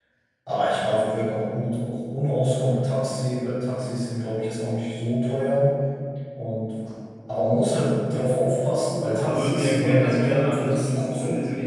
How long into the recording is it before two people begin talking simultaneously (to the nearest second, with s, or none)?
9 s